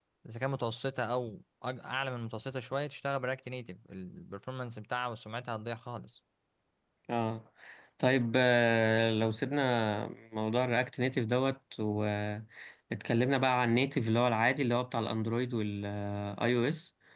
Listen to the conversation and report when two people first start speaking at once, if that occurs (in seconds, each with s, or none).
none